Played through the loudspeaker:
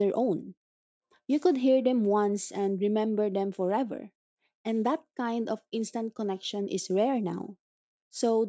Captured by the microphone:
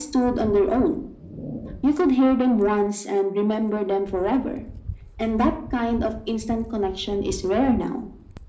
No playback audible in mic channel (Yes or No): No